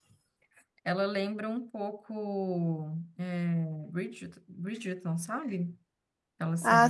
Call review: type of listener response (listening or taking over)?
taking over